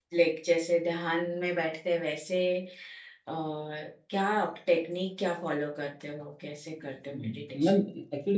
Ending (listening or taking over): taking over